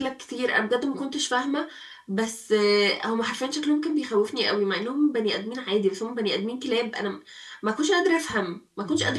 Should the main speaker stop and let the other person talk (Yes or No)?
Yes